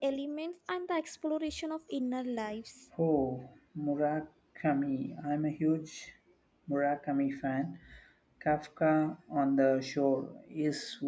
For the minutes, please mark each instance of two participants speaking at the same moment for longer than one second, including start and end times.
none

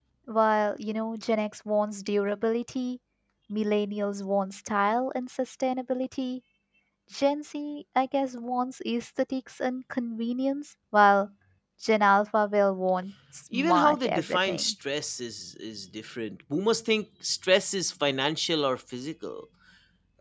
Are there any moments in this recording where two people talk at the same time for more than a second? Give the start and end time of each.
13.5-14.7

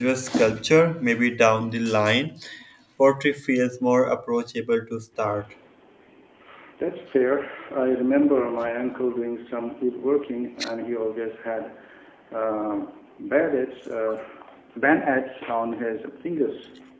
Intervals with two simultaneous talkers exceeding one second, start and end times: none

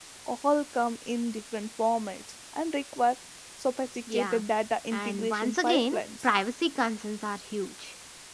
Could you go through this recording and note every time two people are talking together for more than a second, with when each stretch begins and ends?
4.9-6.2

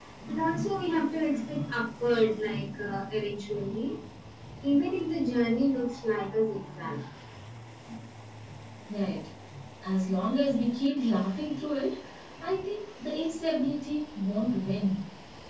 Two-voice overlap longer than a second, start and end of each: none

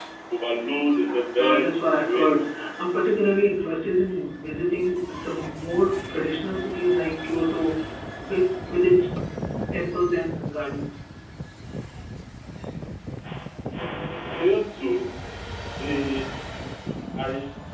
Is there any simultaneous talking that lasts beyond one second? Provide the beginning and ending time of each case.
1.4-2.7

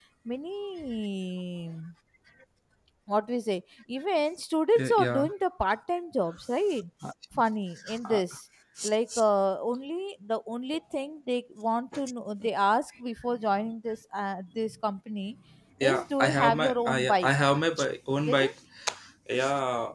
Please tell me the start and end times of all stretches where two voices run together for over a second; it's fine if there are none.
15.8-17.3

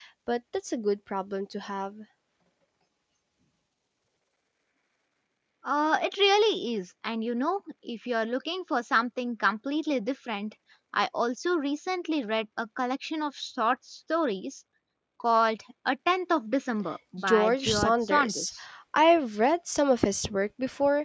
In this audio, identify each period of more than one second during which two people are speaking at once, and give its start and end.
17.2-18.5

